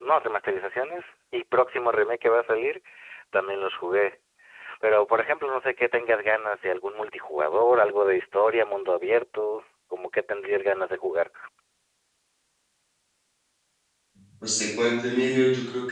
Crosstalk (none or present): none